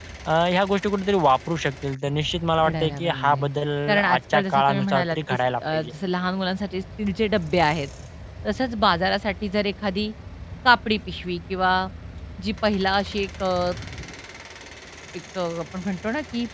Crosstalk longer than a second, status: present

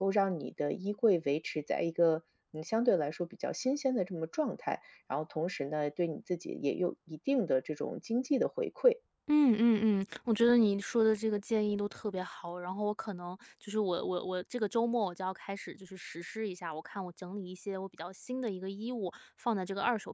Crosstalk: none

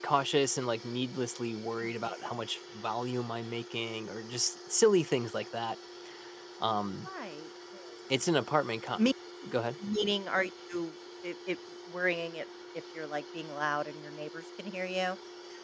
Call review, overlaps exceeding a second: none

